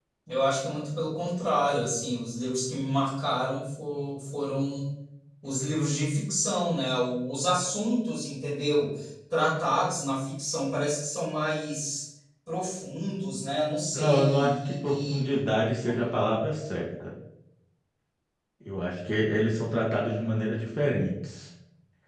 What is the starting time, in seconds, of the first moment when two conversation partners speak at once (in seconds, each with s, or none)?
13.9 s